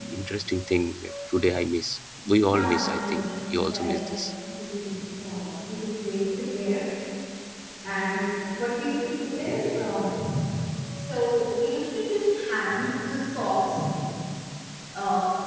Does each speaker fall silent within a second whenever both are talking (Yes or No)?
No